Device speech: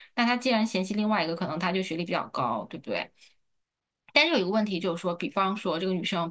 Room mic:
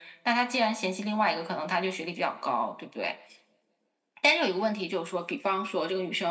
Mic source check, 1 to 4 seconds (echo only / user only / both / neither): echo only